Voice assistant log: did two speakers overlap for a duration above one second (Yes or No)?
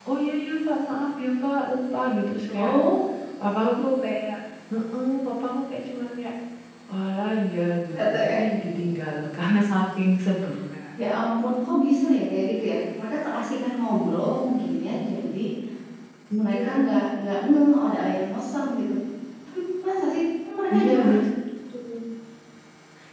No